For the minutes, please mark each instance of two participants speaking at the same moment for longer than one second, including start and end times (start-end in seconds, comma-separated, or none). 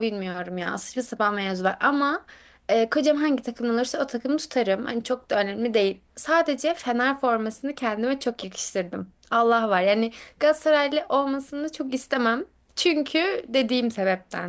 none